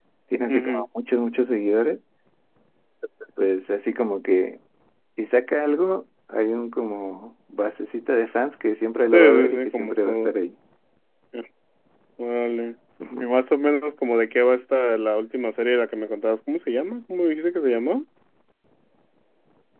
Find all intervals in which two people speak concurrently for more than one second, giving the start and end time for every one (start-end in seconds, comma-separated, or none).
9.1-10.3